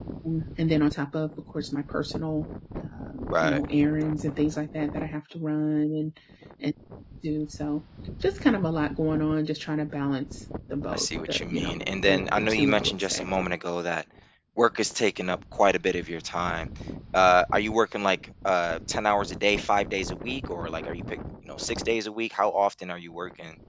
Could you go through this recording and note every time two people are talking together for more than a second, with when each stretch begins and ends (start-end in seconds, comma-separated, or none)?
10.9-13.3